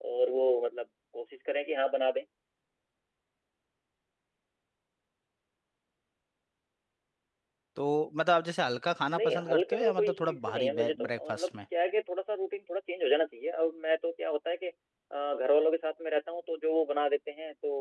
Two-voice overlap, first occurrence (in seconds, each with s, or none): 9.1 s